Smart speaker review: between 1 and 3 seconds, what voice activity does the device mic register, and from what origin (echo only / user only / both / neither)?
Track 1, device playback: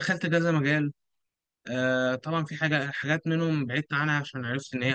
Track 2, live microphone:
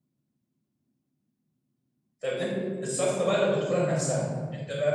user only